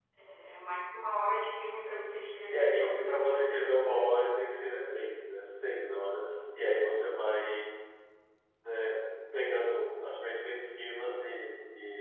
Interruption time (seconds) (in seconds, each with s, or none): 2.5 s